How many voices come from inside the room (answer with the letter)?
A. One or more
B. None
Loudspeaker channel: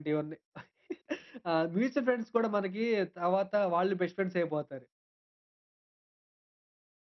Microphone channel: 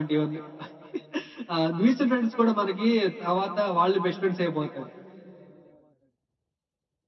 B